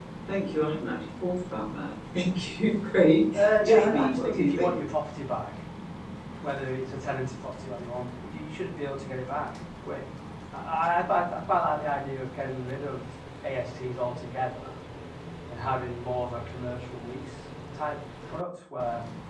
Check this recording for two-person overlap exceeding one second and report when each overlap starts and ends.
3.3-4.7

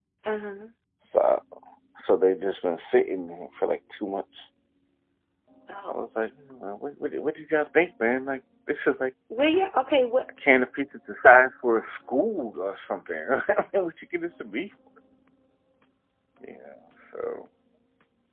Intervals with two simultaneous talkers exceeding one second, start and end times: none

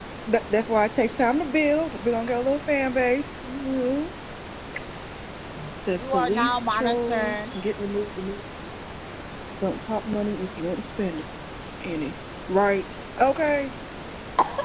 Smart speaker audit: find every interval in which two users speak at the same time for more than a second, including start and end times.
6.0-7.4

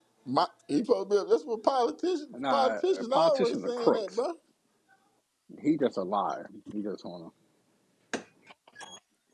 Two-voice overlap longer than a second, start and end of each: 2.3-4.2

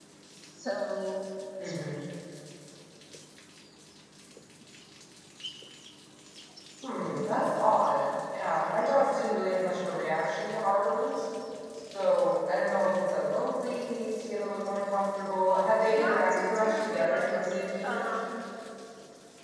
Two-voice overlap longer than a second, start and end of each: 15.9-18.1

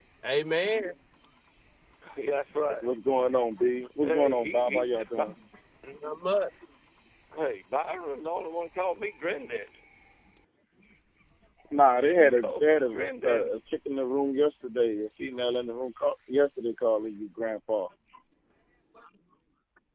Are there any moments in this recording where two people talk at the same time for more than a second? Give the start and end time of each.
4.0-5.3, 12.0-13.5

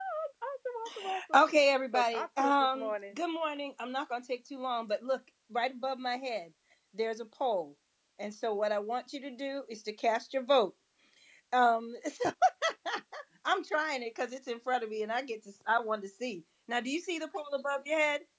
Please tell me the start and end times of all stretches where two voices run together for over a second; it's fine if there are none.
1.9-3.2

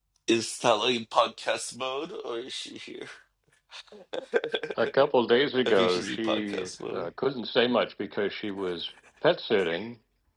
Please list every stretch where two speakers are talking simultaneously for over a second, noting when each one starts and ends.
5.7-7.1

